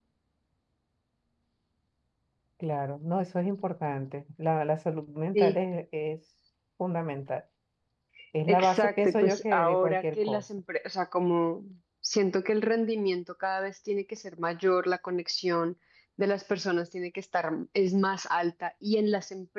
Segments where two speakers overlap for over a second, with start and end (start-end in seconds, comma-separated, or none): 8.4-10.4